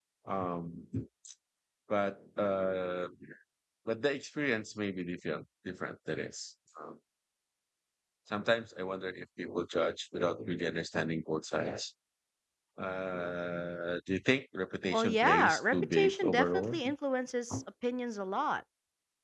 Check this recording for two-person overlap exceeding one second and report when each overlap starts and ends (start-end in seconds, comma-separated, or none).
14.9-16.8